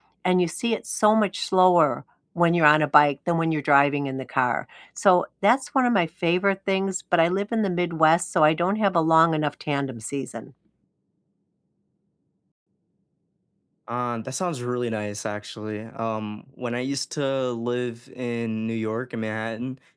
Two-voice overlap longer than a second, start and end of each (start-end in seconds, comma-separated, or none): none